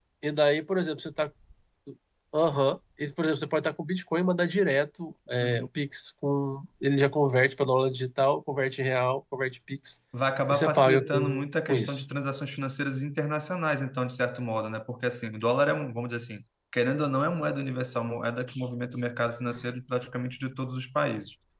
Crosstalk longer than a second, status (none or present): present